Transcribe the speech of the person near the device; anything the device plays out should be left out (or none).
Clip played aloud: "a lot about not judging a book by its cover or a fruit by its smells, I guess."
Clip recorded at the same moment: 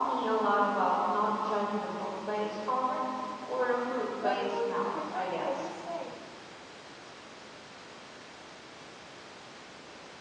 What about your preferred travel style?